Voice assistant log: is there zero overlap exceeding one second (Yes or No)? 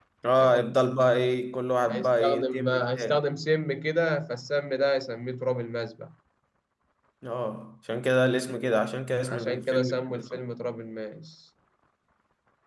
No